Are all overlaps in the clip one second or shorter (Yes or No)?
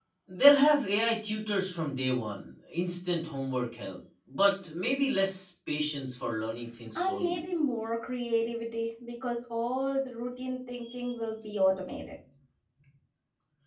Yes